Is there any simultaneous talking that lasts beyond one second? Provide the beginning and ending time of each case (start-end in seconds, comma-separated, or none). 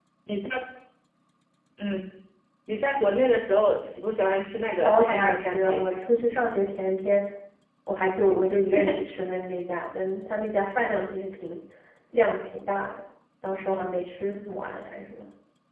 4.7-6.0